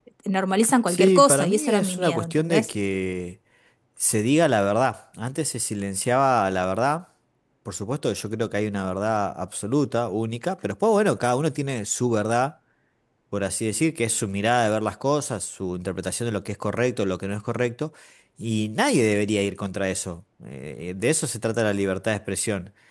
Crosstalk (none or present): present